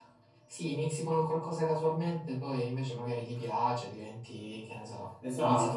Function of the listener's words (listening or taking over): taking over